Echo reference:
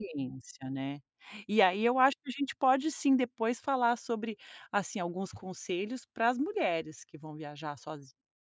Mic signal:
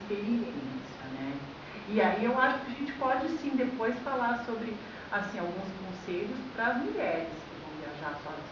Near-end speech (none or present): none